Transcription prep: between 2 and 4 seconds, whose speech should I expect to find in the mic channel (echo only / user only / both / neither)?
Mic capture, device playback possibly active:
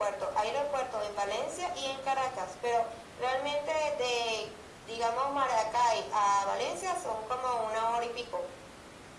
echo only